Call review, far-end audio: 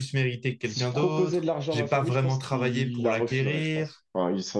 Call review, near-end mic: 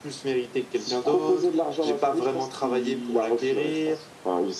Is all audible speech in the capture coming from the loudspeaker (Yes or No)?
Yes